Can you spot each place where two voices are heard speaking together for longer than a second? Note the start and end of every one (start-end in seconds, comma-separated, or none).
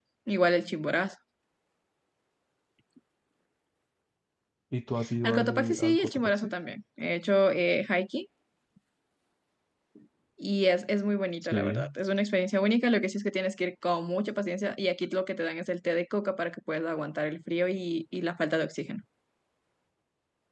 5.2-6.5